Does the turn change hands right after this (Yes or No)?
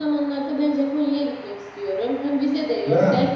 No